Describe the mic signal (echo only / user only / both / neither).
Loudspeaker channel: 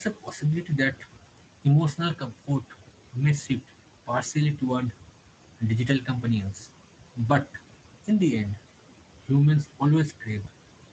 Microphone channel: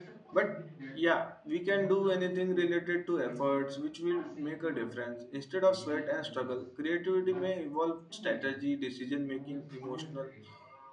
both